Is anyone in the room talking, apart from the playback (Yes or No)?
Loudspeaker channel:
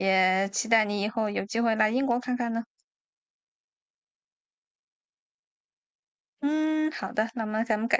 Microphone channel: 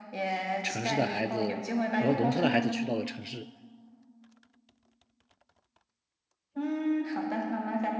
Yes